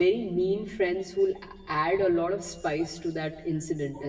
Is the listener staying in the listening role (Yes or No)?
Yes